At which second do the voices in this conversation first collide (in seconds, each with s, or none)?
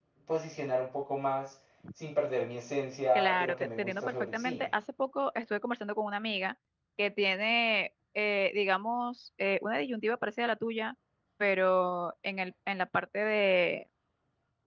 3.1 s